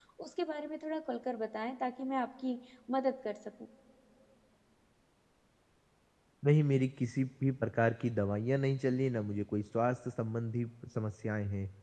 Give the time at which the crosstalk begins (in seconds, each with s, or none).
none